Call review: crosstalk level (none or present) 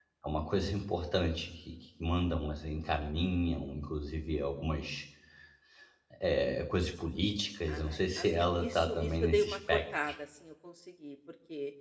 present